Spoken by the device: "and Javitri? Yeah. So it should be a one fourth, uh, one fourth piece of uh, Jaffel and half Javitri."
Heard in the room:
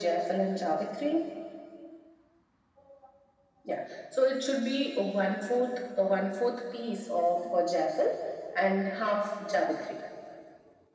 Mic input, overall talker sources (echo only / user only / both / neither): echo only